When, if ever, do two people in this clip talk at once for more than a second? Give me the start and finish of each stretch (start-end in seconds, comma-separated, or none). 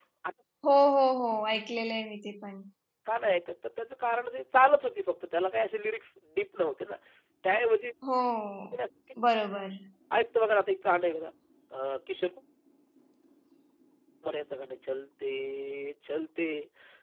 none